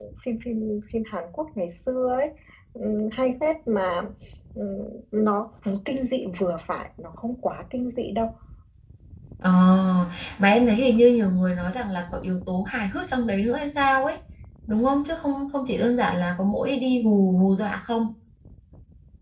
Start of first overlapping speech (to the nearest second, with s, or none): none